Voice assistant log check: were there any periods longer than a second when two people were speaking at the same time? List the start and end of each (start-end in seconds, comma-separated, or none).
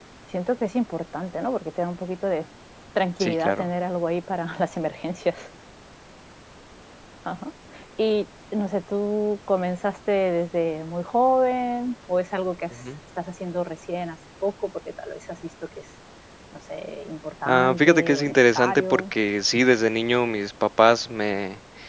17.5-19.0